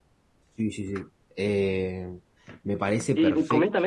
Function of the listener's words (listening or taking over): taking over